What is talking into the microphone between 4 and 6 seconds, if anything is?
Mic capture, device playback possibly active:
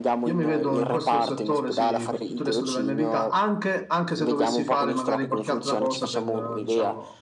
echo only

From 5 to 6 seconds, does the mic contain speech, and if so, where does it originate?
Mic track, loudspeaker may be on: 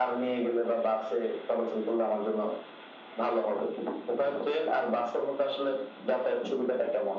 echo only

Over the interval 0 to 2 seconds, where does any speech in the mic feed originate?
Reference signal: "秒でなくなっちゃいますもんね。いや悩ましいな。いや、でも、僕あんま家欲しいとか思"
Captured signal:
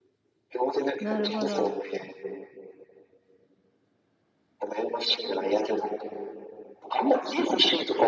both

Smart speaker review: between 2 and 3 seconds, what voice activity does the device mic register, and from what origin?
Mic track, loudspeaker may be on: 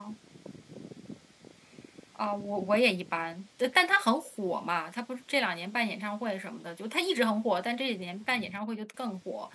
user only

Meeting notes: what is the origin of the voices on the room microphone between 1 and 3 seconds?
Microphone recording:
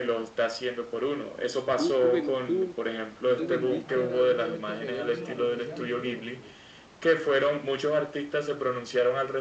echo only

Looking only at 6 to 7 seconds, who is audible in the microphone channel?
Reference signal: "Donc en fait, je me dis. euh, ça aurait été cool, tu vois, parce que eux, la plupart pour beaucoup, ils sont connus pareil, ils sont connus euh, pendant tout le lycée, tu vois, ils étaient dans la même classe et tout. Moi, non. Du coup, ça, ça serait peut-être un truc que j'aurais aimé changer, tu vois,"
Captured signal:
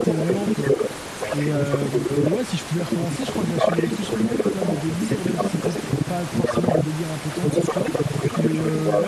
both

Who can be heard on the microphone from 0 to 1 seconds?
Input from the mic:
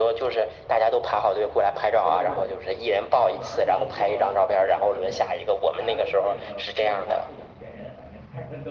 echo only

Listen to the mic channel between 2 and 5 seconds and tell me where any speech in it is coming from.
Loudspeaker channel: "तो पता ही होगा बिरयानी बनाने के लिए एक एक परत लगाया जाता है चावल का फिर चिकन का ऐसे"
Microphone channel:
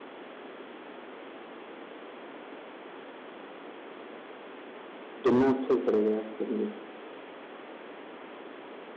neither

